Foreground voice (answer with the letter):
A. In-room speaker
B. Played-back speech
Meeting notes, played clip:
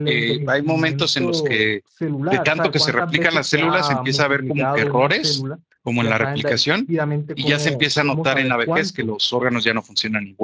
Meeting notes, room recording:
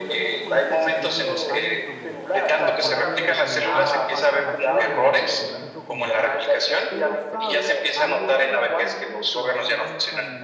B